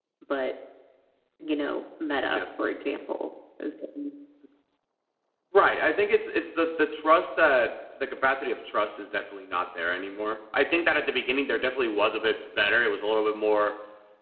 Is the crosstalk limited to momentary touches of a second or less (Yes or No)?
Yes